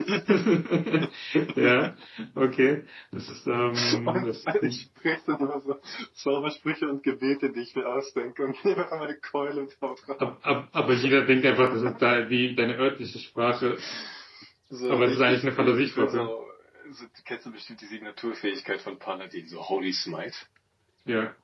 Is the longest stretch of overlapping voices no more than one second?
No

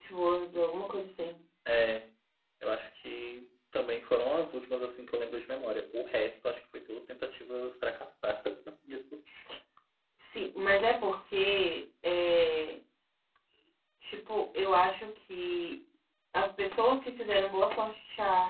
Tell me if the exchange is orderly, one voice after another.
Yes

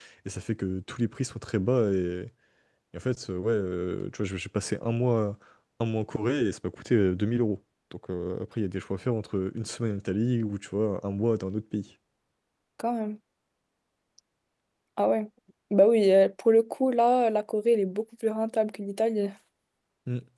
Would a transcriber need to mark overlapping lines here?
No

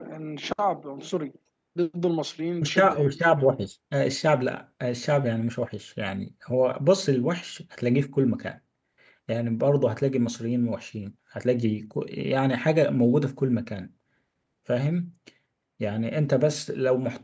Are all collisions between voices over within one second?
Yes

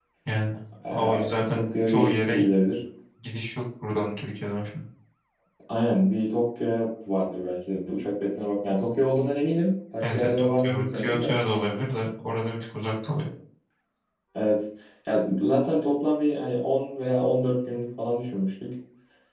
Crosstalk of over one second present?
Yes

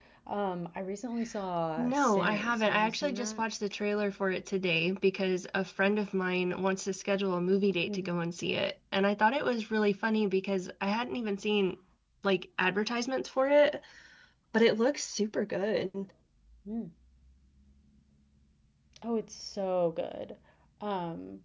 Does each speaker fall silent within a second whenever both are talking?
No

